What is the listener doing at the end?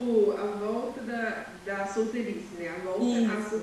taking over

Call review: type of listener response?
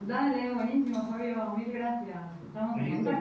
taking over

